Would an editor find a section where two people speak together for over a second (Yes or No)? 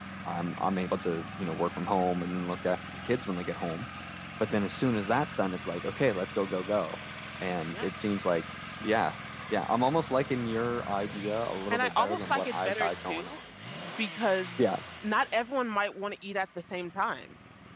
Yes